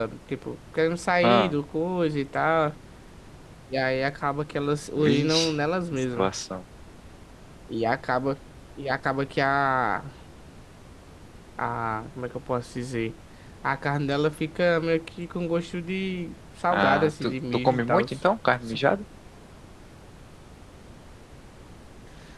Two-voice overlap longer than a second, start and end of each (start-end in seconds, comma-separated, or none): 16.7-18.1